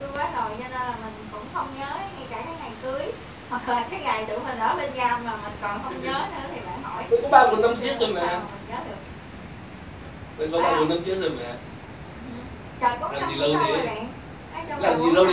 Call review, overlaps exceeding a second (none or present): present